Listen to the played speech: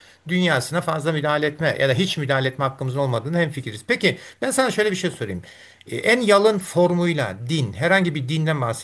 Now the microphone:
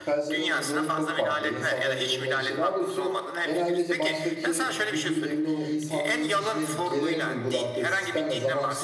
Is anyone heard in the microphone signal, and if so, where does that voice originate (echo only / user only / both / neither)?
both